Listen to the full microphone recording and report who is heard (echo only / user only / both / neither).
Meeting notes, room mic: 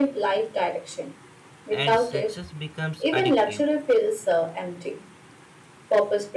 both